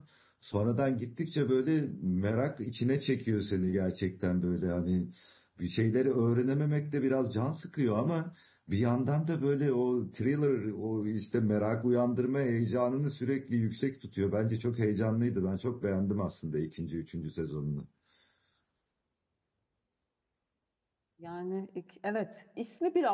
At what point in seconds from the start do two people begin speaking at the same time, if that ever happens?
none

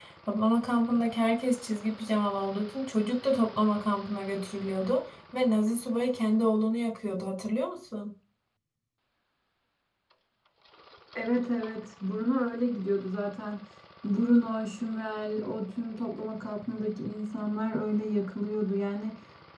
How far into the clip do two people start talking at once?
none

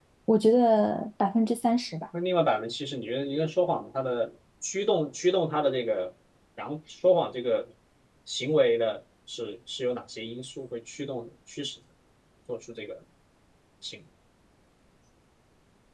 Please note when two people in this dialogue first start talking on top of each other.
none

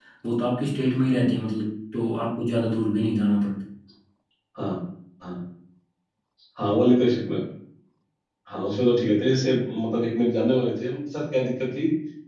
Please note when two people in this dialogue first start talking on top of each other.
none

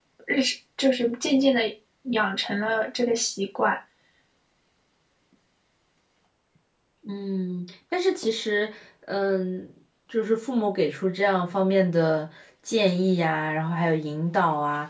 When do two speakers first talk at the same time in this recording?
none

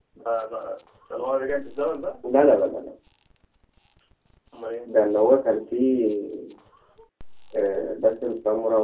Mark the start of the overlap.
none

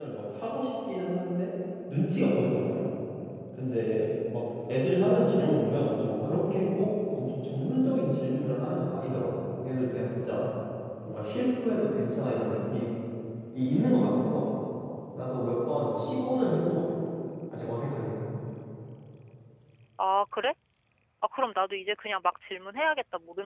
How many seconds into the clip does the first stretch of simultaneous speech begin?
none

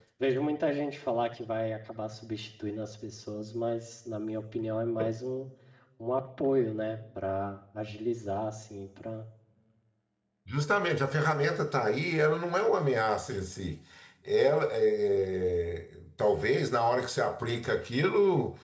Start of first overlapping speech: none

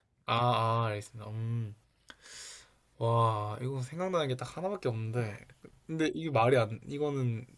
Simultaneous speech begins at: none

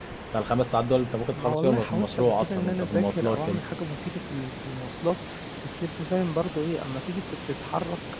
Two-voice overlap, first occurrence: 1.3 s

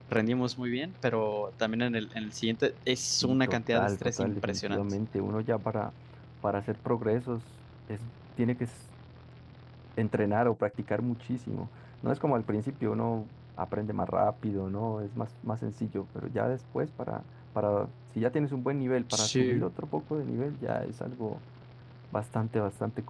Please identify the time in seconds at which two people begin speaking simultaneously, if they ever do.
3.2 s

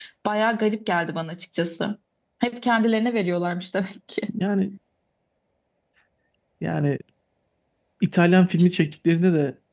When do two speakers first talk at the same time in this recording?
none

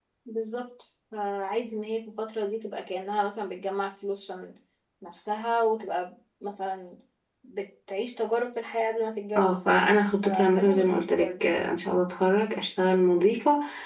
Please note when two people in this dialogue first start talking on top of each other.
9.4 s

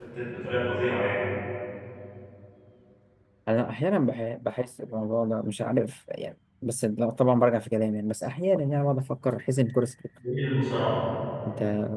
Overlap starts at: none

